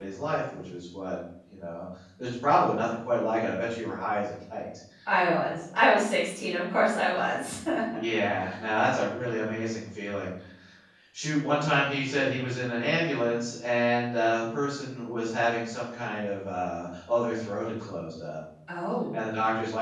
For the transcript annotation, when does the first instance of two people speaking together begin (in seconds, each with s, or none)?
none